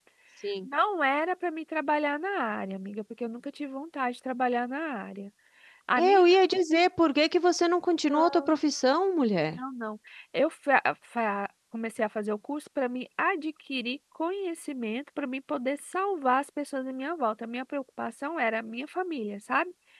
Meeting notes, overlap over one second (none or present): none